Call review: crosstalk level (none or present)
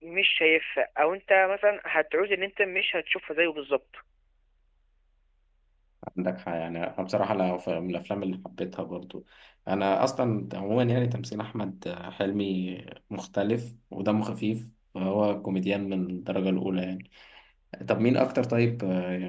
none